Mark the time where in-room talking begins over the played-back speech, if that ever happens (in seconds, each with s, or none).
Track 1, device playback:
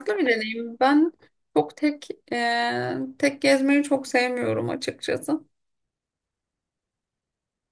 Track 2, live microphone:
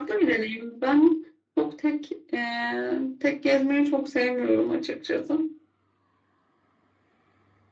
none